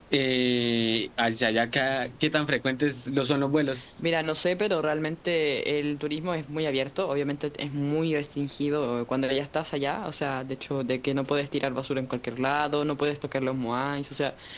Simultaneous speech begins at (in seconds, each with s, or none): none